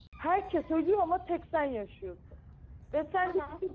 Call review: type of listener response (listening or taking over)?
listening